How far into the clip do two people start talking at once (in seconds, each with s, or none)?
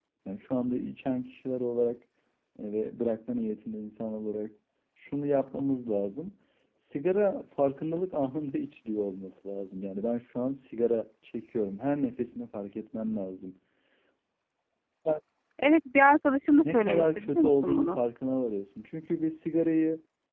16.5 s